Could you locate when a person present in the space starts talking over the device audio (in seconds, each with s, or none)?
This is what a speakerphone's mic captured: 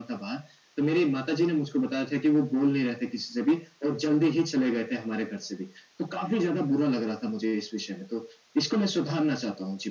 none